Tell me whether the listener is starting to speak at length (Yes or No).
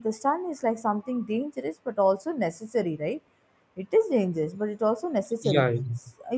No